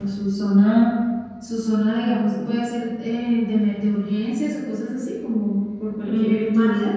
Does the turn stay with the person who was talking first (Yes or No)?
No